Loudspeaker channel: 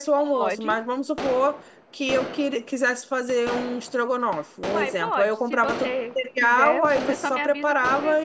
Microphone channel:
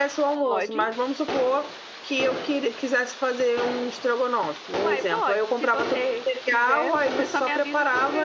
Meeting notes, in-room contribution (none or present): none